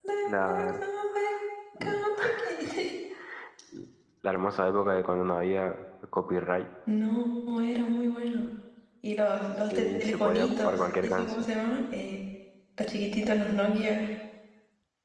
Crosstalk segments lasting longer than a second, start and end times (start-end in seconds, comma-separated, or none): 9.7-11.4